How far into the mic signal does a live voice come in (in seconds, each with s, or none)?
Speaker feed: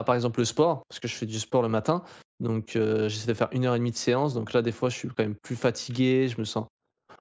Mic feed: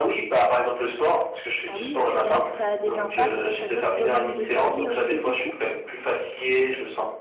1.6 s